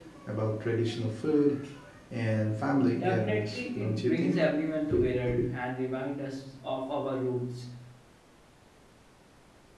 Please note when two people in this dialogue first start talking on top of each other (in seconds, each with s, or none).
3.0 s